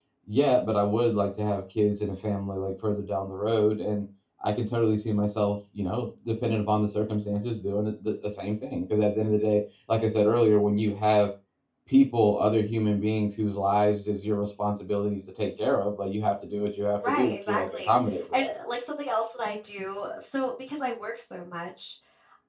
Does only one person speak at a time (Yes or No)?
No